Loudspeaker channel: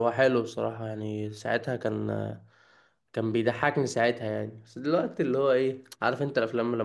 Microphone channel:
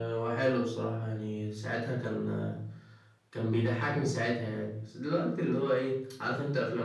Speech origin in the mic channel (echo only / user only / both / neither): echo only